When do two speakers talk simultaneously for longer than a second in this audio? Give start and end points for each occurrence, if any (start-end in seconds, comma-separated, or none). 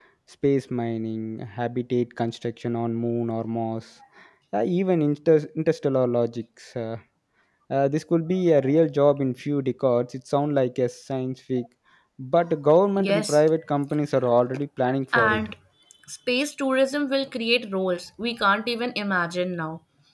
none